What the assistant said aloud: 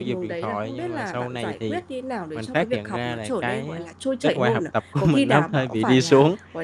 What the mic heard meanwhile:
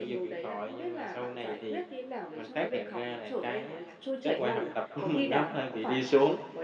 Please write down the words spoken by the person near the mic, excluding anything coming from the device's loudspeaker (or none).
none